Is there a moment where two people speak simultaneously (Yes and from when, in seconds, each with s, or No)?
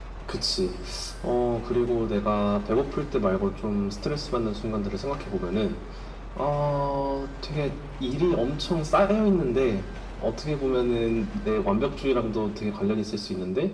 No